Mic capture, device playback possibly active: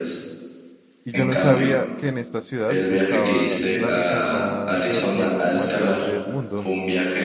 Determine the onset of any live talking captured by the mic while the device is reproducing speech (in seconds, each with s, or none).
1.0 s